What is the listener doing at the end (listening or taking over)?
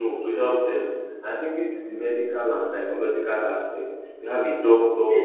taking over